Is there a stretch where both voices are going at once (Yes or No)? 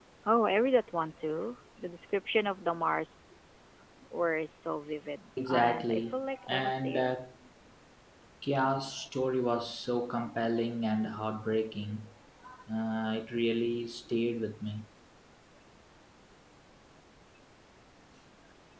Yes